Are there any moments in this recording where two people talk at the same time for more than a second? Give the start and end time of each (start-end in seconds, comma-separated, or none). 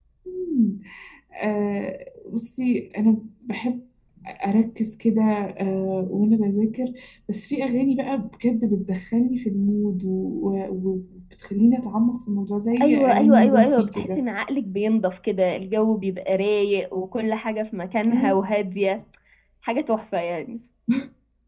12.8-14.2